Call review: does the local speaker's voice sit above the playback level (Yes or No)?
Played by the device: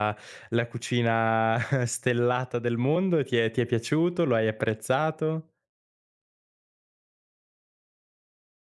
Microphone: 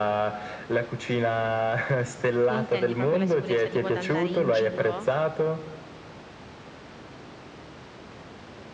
No